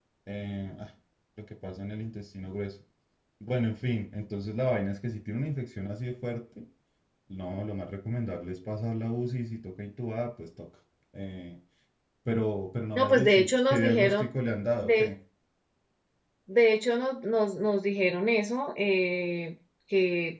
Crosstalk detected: Yes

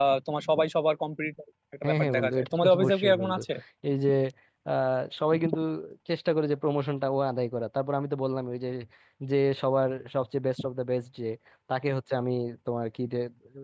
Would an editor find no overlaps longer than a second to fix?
No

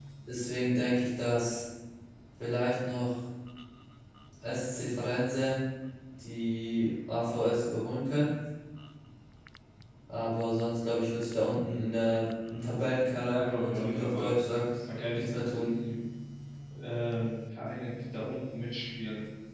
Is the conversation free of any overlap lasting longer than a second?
No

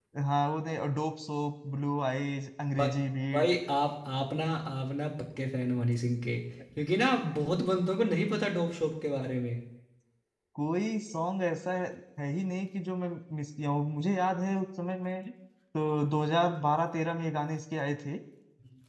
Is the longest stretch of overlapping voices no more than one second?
Yes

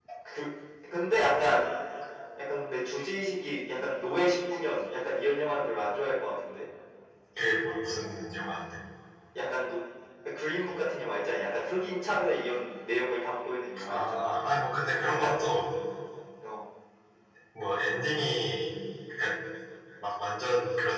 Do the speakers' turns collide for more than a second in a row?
No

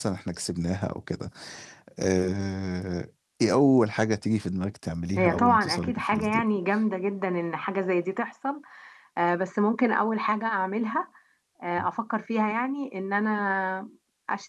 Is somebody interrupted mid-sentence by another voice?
Yes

